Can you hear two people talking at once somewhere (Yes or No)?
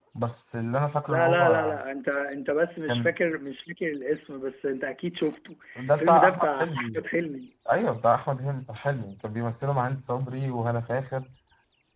Yes